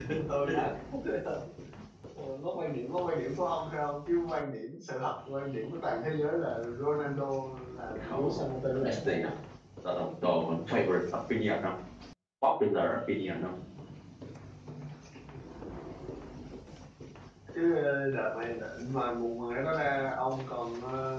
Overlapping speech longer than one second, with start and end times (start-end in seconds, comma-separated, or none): 8.0-9.3